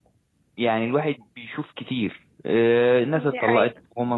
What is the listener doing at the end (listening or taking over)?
listening